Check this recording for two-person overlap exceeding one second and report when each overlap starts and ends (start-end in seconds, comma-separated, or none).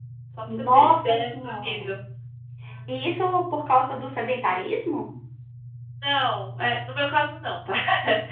0.5-1.9